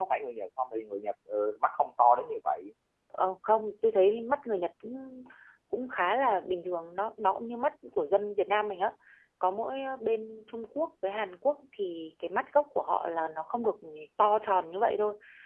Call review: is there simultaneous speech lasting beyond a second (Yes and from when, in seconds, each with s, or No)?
No